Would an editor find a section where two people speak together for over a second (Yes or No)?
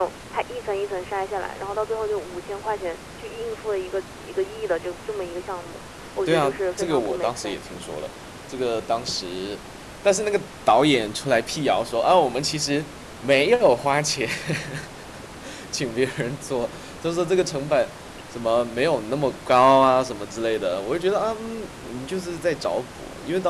Yes